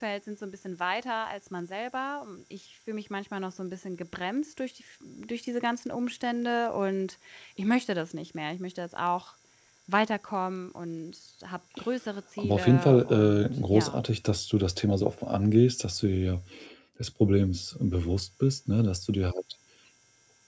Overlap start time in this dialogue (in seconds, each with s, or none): 12.4 s